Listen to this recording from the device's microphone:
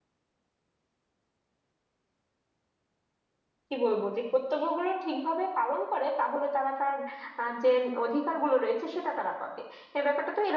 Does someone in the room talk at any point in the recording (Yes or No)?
Yes